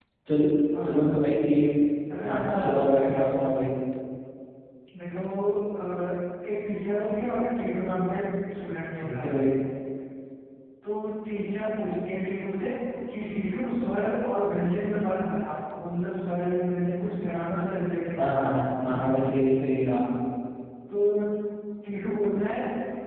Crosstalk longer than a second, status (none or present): present